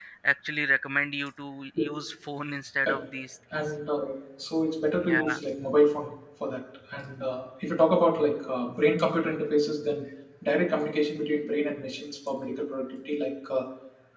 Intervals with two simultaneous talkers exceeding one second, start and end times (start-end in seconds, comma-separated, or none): none